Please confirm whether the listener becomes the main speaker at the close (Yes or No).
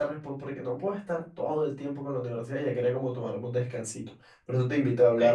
No